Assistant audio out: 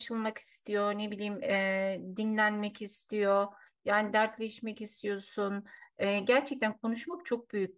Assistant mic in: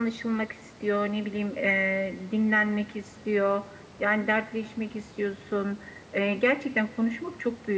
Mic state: echo only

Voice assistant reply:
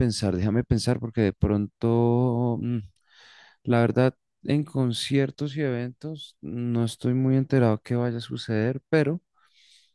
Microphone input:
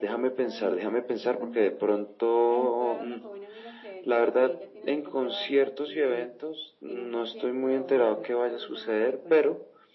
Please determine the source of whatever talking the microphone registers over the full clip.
both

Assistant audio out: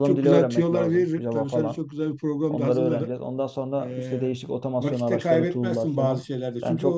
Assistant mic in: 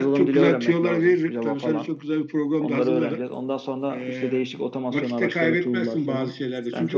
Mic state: echo only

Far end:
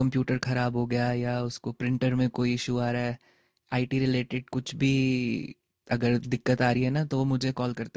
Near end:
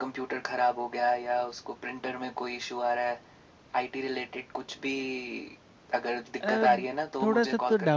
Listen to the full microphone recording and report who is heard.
both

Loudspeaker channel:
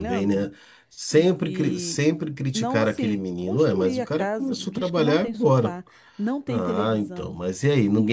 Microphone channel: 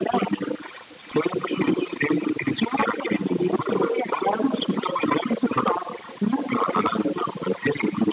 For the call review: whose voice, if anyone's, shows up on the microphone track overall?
echo only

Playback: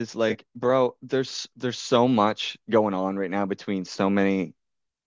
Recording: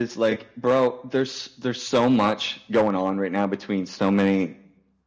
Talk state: echo only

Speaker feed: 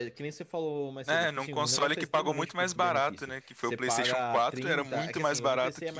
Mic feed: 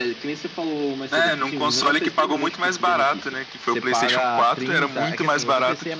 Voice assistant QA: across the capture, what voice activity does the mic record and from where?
echo only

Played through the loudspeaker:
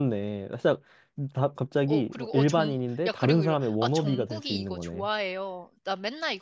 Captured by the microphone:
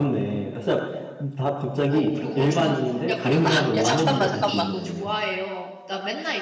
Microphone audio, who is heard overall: both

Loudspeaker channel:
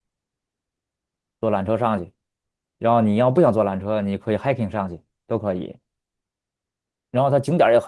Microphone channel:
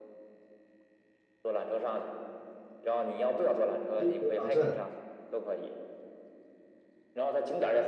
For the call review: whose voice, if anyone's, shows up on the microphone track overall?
both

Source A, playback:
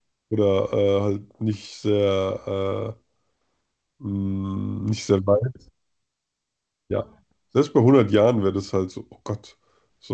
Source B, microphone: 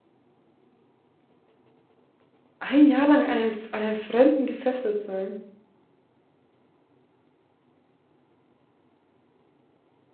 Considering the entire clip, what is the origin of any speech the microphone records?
user only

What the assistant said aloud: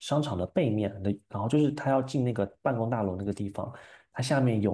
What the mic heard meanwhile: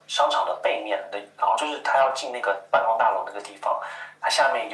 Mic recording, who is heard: echo only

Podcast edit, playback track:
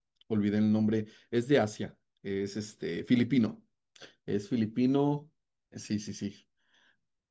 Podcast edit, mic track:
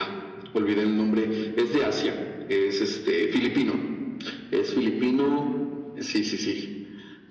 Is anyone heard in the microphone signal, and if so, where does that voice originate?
echo only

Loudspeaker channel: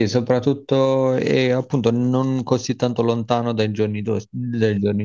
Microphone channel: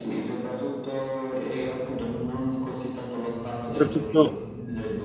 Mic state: both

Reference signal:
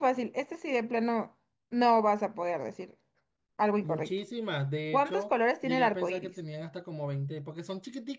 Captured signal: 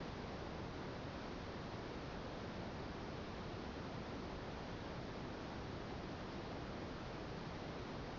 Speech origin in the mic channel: neither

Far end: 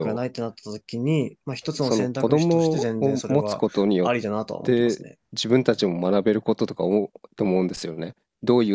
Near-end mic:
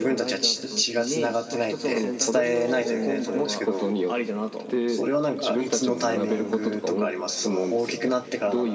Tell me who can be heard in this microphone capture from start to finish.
both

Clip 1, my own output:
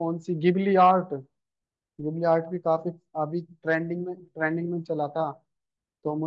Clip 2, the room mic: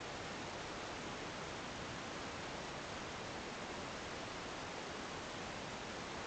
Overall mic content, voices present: neither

